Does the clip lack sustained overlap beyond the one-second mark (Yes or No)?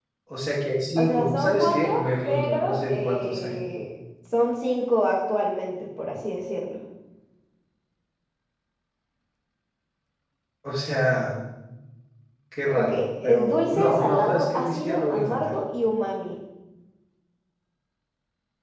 No